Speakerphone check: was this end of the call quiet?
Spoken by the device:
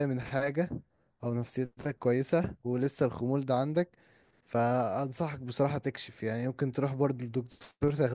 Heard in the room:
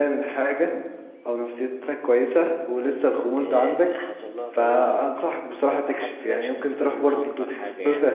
No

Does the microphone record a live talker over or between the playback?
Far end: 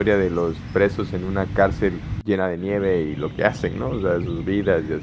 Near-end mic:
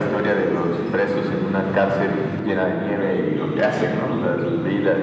No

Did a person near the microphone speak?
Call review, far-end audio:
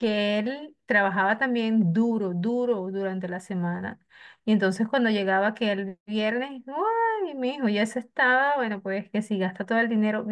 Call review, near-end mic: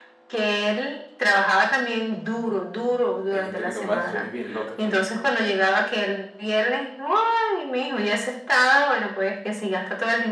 Yes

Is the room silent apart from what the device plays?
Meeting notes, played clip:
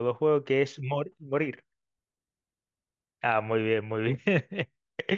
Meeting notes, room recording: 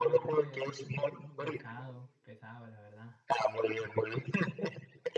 No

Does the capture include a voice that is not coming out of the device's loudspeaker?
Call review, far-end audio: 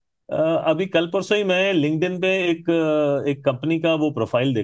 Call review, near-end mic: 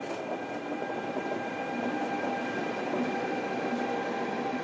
No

